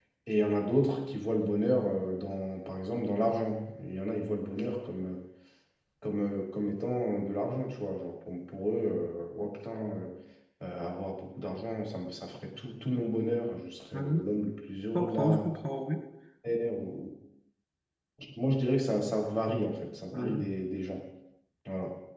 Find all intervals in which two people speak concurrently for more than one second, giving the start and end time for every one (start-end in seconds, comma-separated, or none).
none